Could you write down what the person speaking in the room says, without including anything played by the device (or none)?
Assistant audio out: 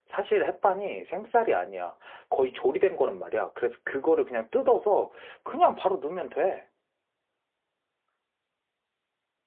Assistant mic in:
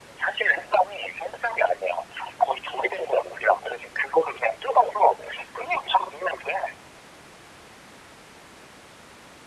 none